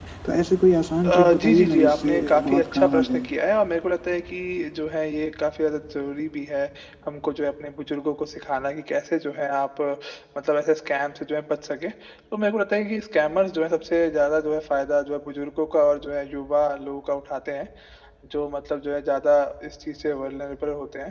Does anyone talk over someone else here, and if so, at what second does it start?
1.0 s

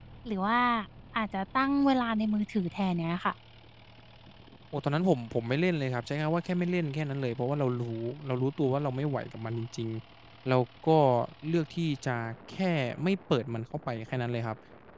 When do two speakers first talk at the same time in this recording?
none

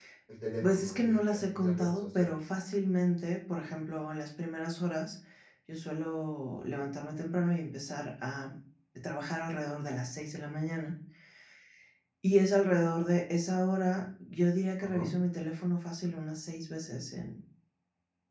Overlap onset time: 0.6 s

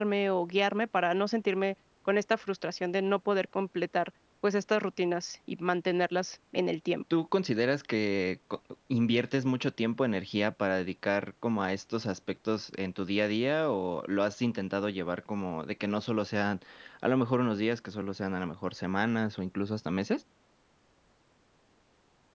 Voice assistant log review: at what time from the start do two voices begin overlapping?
none

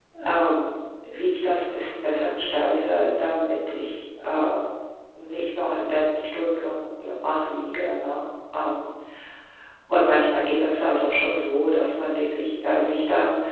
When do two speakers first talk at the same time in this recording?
none

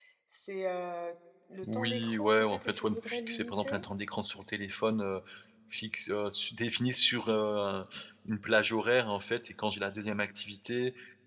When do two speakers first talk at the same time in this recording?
1.6 s

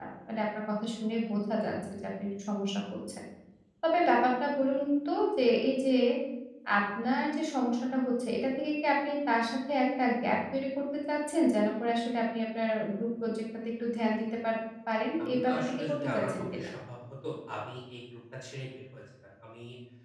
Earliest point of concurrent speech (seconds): 15.2 s

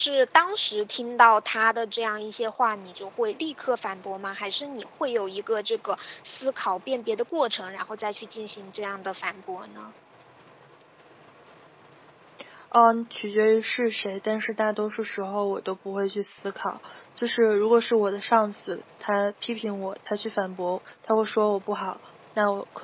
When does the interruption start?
none

